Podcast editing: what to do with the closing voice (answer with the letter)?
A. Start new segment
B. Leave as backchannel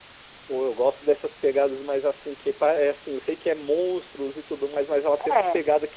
B